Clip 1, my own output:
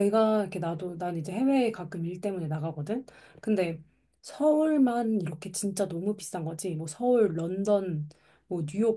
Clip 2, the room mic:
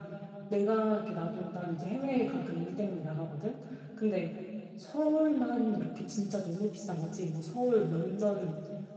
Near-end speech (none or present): none